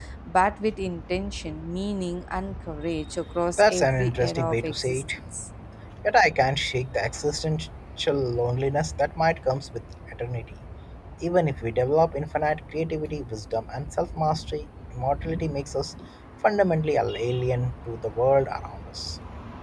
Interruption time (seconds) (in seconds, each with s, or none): 3.6 s